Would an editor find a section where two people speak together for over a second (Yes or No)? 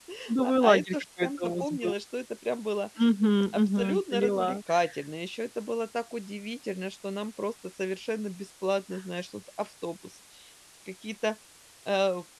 Yes